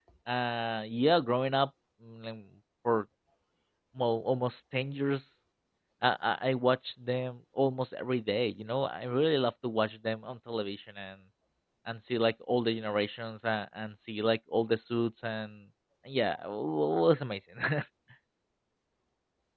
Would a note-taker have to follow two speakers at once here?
No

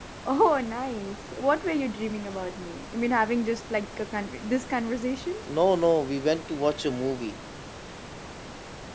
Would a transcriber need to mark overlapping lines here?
No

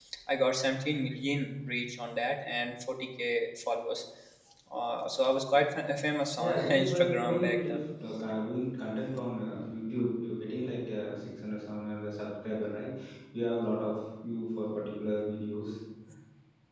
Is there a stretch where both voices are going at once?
Yes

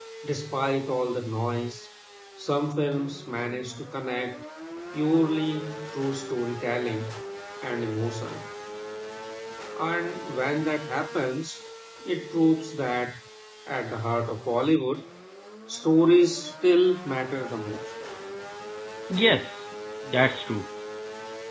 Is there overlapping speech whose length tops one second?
No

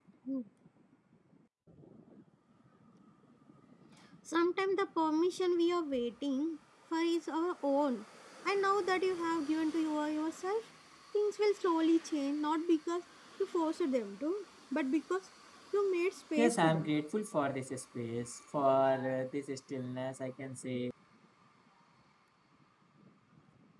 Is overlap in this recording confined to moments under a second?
Yes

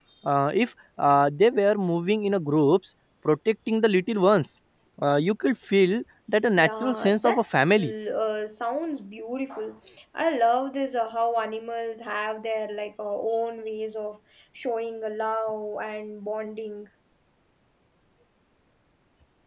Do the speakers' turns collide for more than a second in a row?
Yes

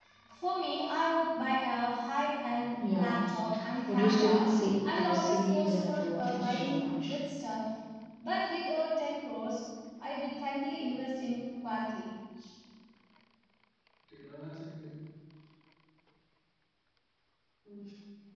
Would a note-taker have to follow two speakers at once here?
Yes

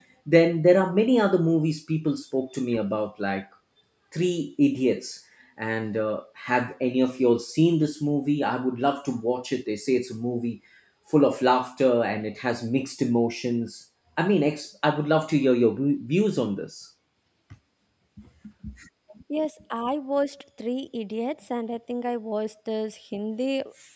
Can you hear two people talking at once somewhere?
No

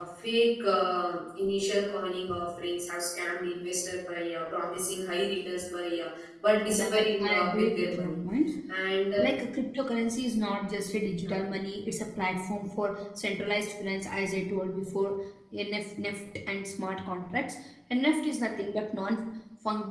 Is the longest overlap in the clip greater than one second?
Yes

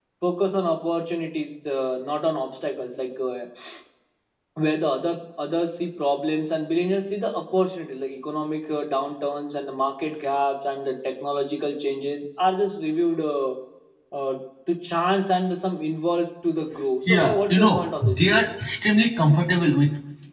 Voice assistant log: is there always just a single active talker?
No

